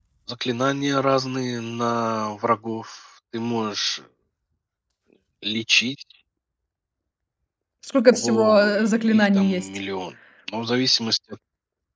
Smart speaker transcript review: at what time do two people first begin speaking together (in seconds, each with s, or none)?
8.1 s